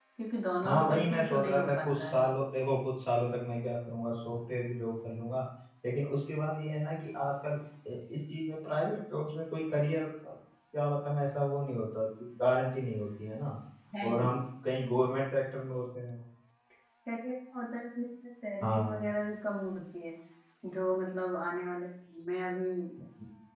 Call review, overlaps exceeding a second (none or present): present